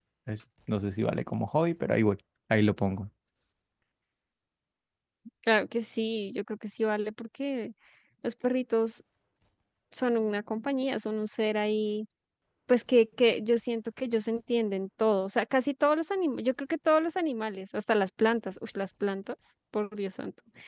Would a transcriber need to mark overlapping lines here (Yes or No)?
No